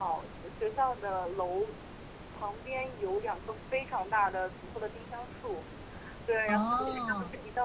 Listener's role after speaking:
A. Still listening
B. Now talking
A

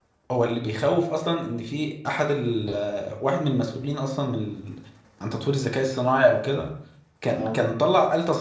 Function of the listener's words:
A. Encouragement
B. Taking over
A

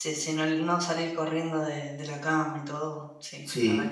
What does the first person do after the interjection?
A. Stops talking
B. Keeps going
A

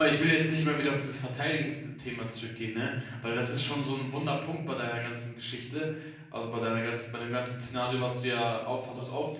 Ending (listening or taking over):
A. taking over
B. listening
B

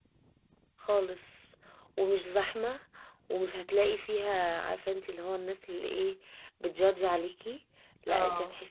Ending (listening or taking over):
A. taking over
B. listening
B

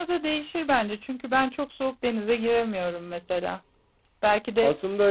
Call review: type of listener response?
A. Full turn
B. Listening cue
B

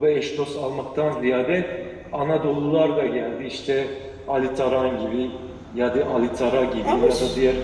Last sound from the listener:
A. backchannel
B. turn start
A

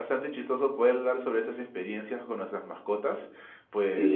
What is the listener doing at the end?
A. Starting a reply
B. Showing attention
B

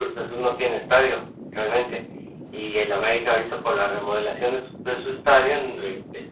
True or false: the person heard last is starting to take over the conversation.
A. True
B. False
B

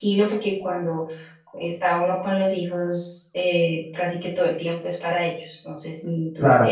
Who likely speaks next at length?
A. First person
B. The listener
A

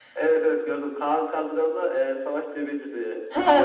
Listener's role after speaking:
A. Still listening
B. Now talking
B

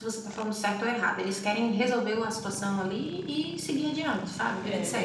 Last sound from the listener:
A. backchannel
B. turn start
B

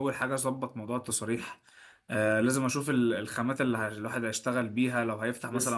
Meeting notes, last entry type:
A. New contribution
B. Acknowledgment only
A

